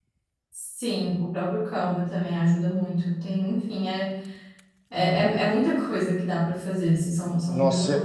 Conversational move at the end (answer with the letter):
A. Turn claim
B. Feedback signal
A